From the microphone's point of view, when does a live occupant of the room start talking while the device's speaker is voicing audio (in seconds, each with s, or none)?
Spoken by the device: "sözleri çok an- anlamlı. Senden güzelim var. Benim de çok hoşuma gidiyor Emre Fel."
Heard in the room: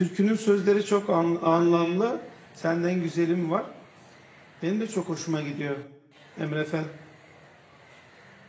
1.4 s